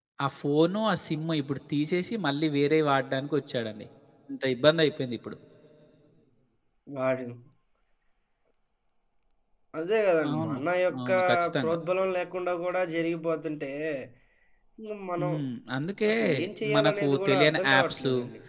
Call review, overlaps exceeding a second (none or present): present